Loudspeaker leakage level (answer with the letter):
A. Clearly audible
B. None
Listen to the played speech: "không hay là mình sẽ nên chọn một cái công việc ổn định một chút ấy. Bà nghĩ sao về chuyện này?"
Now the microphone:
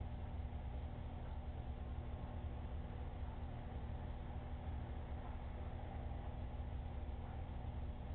B